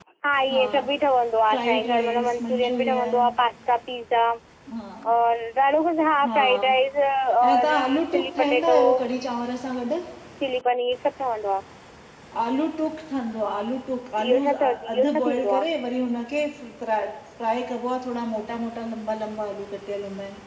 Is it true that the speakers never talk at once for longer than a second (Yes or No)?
No